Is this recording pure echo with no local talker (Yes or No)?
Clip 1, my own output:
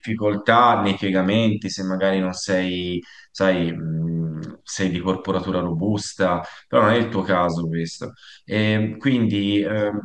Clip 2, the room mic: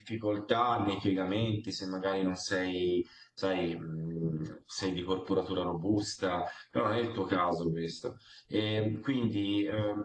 Yes